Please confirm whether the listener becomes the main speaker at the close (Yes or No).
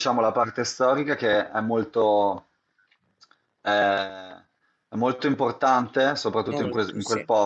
No